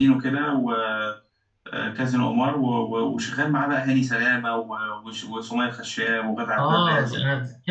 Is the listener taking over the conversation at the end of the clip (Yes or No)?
Yes